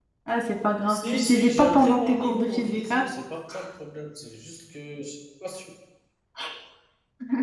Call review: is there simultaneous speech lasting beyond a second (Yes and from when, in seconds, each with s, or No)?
Yes, from 0.9 s